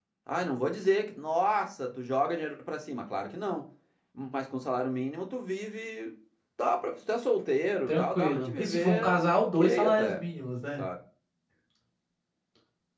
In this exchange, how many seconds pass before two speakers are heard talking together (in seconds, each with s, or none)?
7.9 s